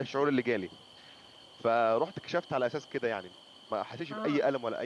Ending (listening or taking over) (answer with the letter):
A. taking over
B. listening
B